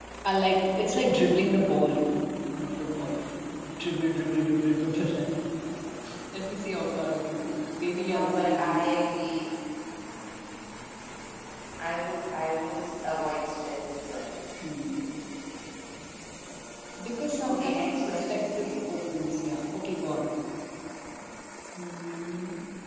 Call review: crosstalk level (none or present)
present